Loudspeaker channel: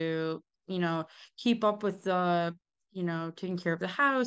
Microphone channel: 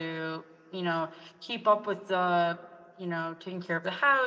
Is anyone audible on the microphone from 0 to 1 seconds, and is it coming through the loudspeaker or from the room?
echo only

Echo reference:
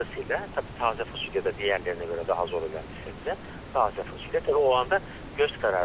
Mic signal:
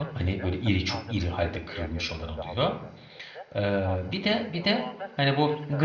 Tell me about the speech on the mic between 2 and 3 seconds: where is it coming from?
both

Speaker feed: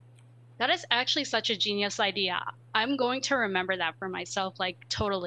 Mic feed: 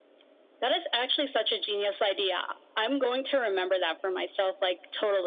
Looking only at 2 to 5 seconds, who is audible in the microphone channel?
echo only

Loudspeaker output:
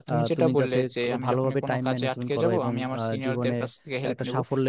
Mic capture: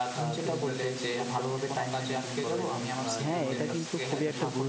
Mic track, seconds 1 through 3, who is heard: echo only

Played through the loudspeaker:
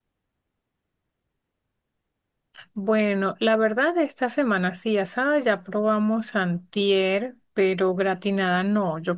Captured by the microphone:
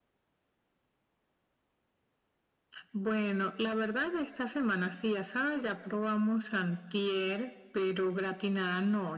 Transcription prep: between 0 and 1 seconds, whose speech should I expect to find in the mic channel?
neither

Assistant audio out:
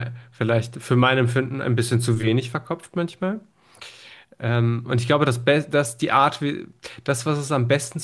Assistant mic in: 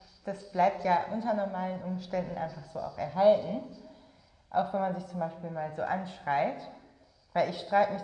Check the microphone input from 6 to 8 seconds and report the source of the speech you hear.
user only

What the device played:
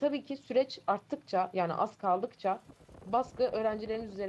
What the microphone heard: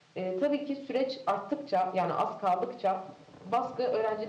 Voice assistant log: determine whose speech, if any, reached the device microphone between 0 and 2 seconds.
echo only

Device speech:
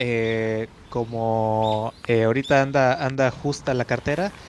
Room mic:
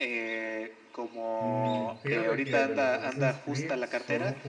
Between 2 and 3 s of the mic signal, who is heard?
both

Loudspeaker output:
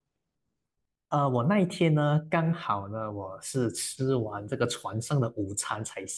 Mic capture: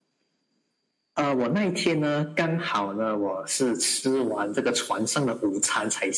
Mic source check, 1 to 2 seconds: echo only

